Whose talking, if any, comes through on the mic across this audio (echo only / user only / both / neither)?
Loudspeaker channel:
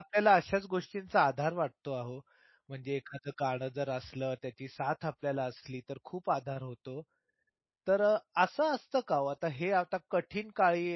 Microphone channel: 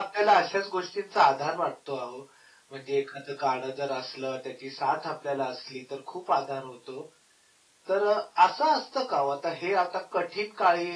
echo only